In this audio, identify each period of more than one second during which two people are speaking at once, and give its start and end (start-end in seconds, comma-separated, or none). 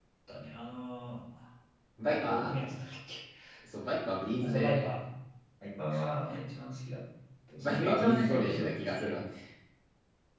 7.6-9.2